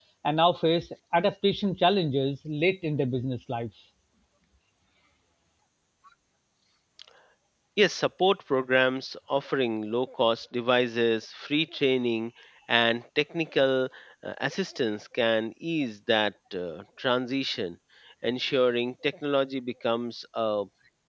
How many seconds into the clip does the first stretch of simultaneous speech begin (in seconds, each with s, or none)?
none